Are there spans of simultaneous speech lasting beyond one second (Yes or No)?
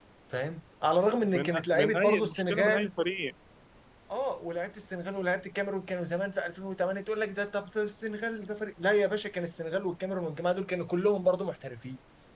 Yes